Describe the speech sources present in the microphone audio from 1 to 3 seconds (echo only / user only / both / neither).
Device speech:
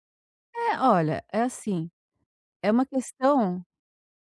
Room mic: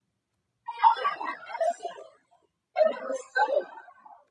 echo only